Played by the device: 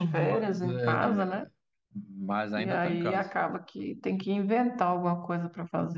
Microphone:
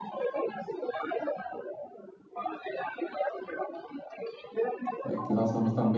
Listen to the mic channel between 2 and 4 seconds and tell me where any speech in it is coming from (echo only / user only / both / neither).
echo only